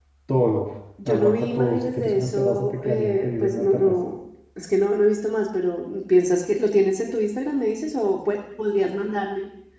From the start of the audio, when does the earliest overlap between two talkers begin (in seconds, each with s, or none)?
1.0 s